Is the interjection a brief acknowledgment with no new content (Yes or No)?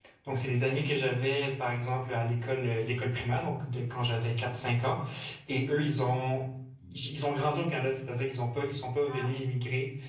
Yes